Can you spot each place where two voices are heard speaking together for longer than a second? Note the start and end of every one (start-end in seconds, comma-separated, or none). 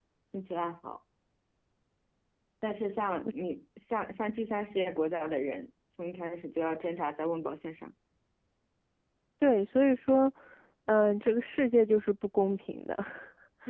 none